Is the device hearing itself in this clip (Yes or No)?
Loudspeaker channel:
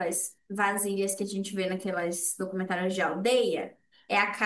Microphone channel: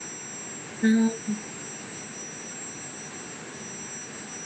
No